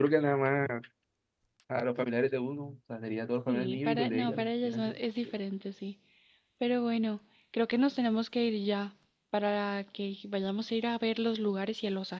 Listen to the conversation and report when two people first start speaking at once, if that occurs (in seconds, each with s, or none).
3.5 s